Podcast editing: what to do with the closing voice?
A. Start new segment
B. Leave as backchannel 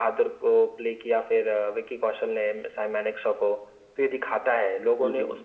B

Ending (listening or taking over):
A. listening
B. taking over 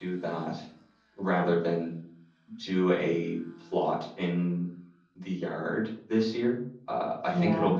A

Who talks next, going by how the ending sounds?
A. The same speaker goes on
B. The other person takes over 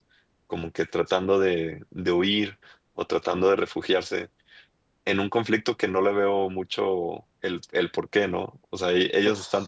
A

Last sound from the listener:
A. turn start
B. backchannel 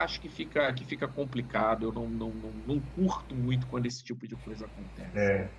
A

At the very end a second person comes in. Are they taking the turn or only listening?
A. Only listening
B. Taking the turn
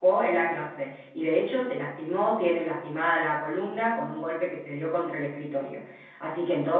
A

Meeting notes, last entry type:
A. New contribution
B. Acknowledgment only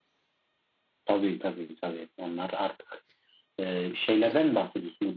B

